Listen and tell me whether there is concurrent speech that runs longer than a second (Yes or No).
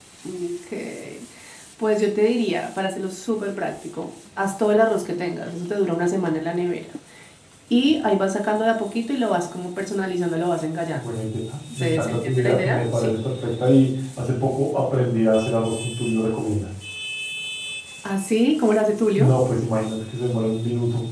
Yes